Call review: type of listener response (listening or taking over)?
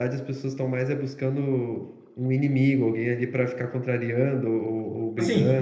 taking over